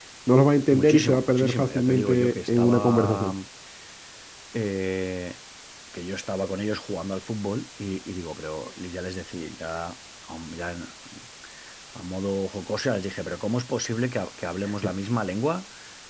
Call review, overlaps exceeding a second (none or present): present